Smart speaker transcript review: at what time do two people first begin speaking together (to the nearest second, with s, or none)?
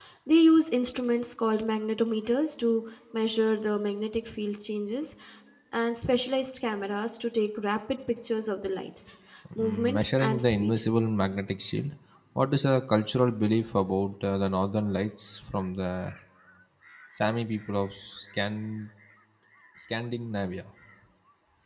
10 s